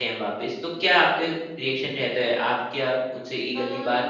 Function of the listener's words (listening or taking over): listening